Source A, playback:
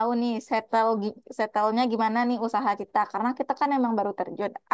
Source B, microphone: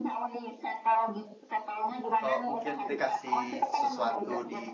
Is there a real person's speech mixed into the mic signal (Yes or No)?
Yes